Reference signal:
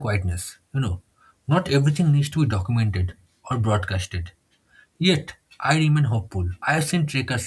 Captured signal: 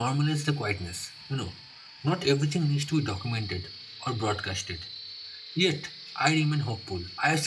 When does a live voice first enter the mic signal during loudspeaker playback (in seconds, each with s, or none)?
none